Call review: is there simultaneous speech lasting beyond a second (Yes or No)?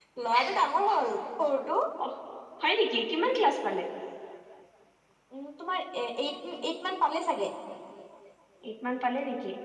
No